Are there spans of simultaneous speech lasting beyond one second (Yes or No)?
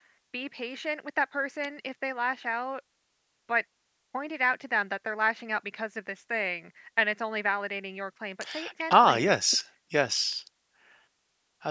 No